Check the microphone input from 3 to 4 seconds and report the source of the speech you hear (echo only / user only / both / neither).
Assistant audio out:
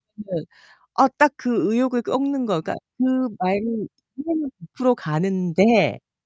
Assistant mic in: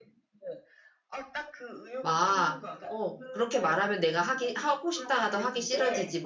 both